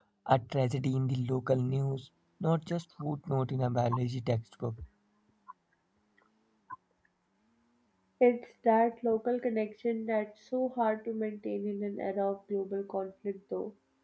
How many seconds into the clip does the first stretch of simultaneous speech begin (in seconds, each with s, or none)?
none